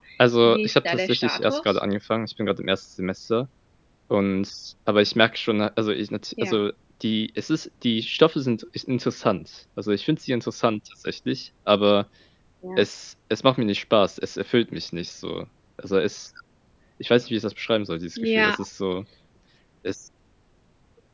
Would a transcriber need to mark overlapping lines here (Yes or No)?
Yes